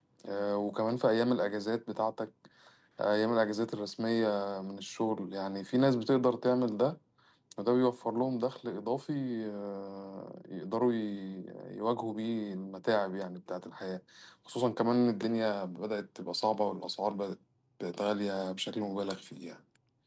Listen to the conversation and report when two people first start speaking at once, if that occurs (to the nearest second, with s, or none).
none